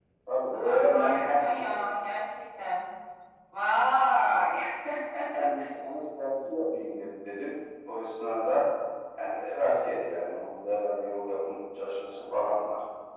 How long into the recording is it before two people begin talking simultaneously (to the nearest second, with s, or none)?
1 s